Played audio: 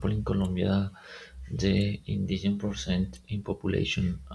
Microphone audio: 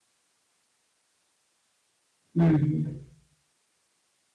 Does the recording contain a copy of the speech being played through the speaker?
No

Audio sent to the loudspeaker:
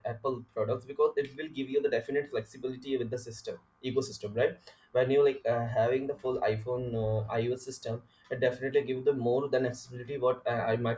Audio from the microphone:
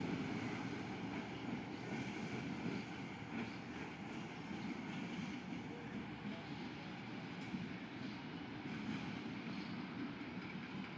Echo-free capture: Yes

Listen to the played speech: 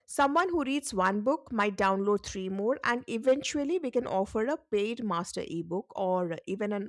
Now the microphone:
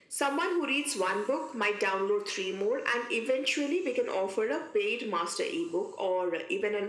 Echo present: Yes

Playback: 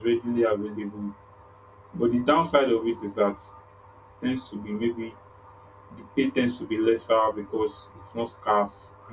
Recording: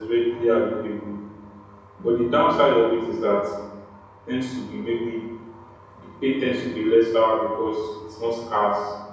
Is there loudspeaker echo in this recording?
Yes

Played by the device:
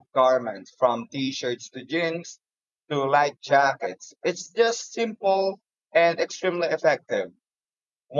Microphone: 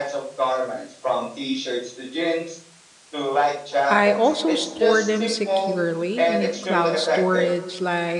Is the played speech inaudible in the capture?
No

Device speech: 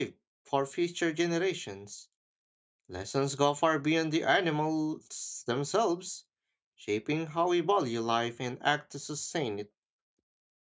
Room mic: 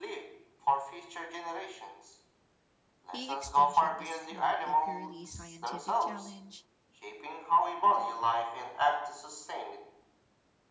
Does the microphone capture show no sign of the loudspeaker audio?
No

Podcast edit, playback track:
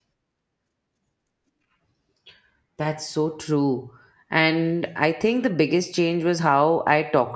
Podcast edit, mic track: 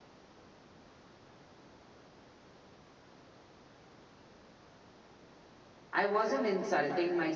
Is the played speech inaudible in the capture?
Yes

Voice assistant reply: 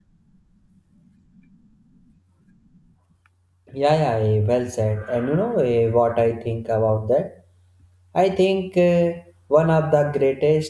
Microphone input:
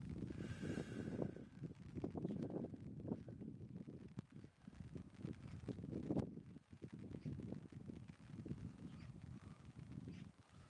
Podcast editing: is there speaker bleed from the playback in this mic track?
No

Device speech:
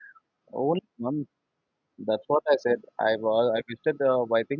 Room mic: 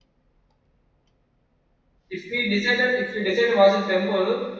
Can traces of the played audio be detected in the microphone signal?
No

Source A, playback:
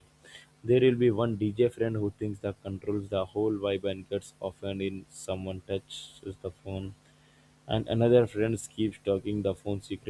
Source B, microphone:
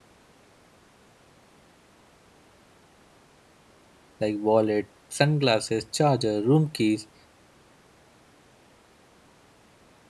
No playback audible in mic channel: Yes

